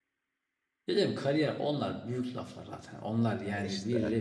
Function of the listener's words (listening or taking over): listening